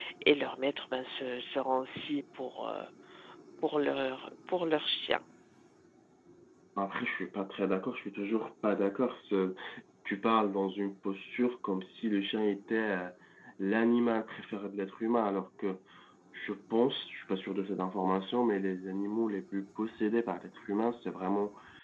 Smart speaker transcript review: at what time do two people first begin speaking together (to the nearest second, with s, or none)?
none